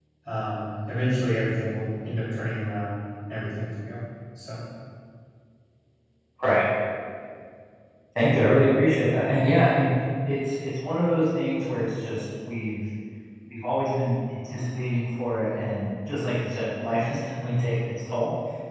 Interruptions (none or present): none